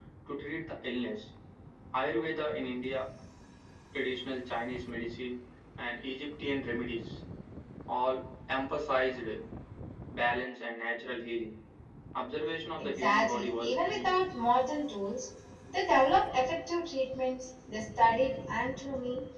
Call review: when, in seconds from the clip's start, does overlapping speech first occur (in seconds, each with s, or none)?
12.8 s